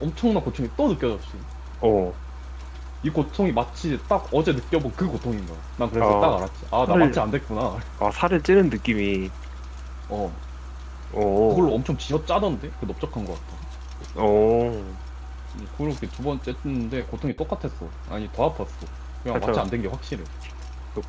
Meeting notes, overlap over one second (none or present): none